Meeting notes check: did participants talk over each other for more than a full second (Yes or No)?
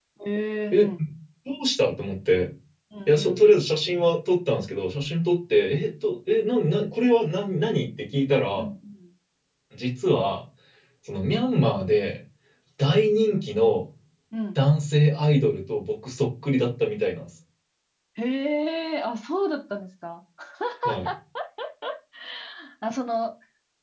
No